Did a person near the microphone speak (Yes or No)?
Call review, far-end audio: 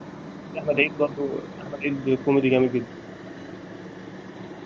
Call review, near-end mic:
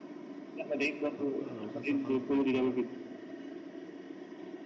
Yes